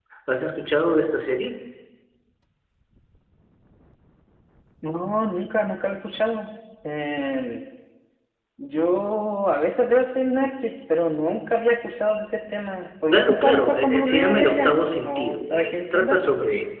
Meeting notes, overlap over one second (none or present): present